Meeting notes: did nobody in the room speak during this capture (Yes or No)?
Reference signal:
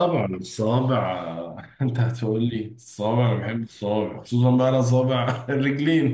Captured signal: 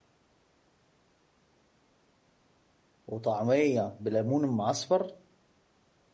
No